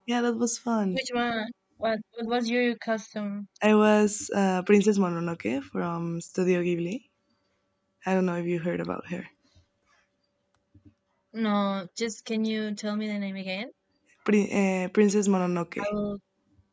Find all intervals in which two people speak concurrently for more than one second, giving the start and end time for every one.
none

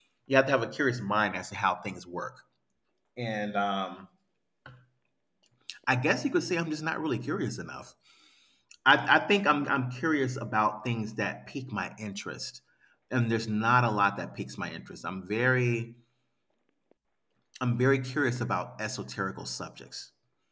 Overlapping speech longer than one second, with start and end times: none

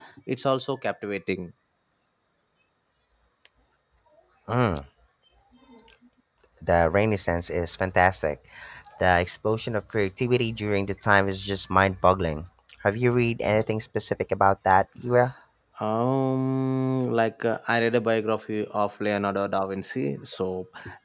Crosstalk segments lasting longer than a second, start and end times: none

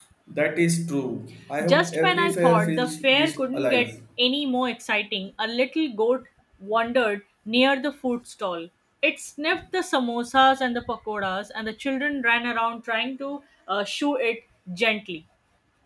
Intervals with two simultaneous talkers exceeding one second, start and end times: 1.6-3.9

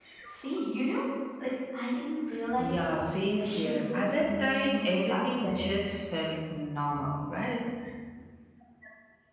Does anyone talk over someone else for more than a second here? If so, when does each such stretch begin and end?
2.6-5.7

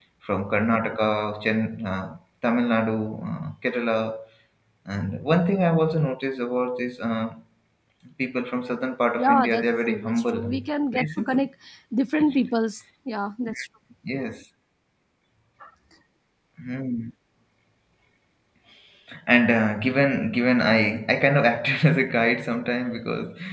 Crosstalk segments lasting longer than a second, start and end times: 9.2-10.6

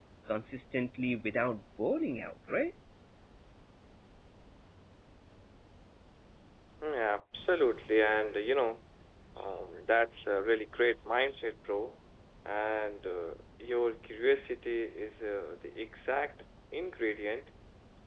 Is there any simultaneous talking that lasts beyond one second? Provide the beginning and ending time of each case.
none

